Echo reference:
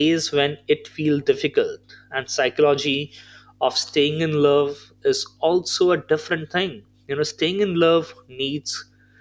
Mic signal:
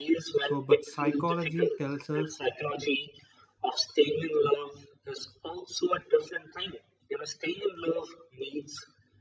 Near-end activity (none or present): present